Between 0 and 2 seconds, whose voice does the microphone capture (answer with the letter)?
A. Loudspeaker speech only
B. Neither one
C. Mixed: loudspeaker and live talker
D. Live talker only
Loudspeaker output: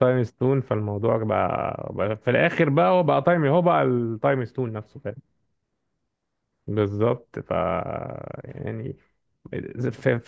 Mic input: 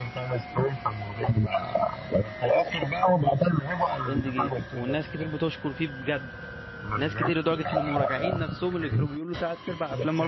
A